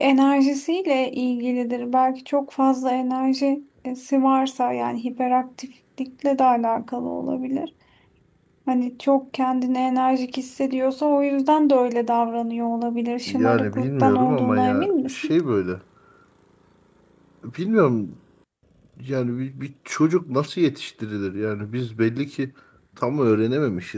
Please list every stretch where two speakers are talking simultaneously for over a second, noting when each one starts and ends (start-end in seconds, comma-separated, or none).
13.3-15.3